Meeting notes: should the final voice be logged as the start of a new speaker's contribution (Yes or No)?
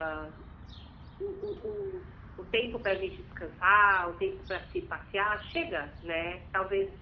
No